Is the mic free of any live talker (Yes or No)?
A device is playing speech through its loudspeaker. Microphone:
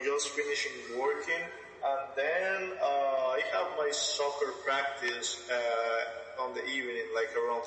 Yes